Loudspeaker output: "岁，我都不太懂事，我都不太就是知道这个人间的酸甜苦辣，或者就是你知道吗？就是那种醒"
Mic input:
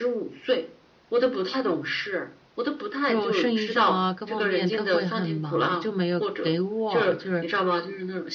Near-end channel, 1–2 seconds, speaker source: echo only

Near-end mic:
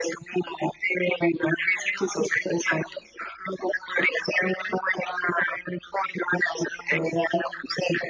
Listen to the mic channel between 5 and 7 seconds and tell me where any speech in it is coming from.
echo only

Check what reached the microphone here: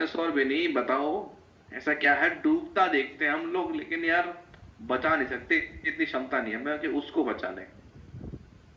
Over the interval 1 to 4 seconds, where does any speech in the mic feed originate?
echo only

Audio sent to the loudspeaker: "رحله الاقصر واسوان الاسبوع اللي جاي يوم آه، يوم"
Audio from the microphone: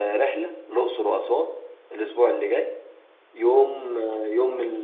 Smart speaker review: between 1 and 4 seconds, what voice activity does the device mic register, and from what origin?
echo only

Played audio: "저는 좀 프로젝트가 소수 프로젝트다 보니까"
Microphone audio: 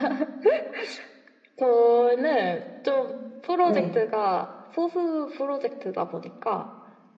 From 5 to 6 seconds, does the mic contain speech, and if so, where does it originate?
echo only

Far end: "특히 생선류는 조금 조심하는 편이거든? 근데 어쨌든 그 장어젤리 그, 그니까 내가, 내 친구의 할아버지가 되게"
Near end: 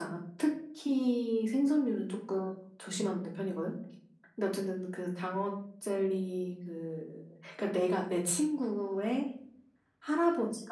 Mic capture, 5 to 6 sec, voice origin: echo only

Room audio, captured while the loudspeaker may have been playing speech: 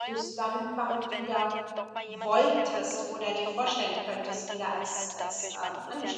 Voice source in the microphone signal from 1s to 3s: both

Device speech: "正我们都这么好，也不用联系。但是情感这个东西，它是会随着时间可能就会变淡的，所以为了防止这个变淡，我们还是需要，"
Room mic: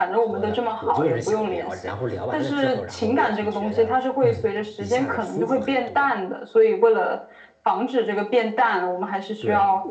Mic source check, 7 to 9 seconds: echo only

